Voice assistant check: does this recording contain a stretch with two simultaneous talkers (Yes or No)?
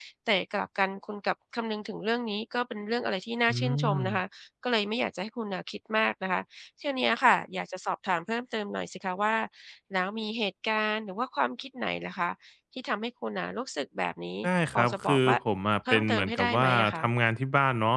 Yes